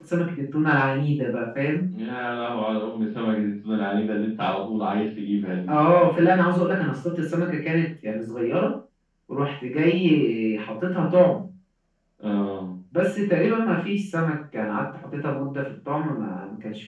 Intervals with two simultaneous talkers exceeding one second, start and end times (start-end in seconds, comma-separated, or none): none